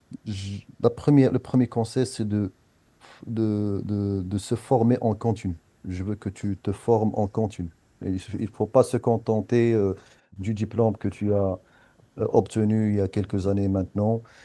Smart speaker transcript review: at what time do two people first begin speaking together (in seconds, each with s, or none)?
none